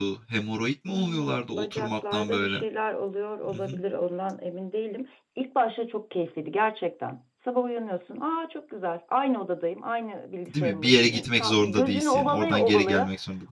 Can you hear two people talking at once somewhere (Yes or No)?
Yes